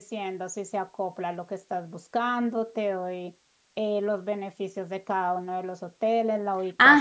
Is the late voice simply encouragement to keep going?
No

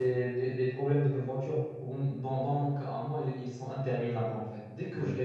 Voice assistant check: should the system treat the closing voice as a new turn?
No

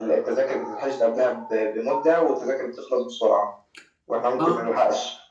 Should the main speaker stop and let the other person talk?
No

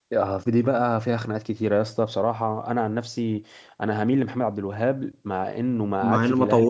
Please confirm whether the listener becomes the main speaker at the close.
Yes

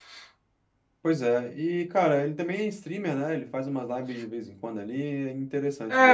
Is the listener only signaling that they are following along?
No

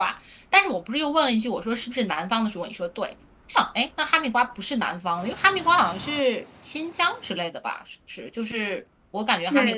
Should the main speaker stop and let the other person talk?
Yes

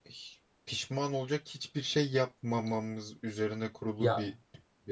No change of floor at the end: No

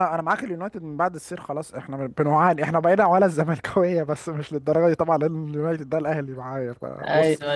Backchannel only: Yes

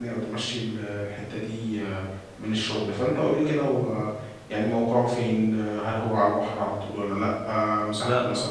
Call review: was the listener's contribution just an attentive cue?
Yes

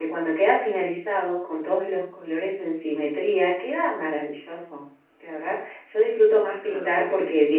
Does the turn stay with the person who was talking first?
Yes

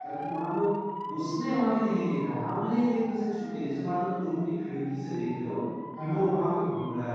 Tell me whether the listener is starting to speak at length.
No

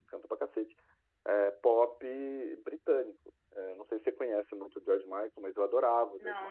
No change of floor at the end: No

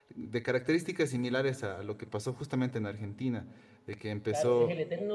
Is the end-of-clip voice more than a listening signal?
Yes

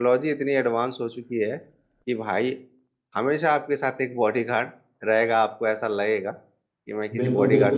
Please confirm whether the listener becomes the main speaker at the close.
Yes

